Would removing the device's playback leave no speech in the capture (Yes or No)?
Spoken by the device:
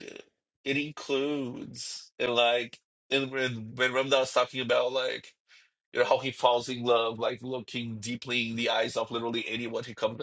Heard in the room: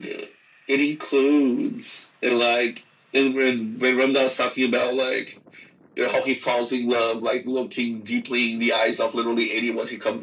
Yes